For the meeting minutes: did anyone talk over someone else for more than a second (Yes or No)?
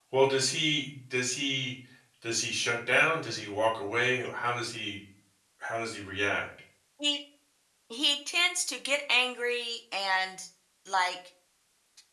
No